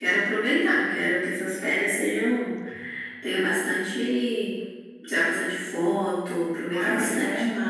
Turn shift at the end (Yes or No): Yes